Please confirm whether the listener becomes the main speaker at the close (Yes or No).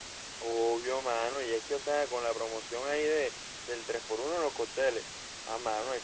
No